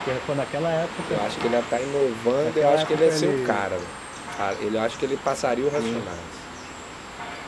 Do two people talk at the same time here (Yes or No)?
Yes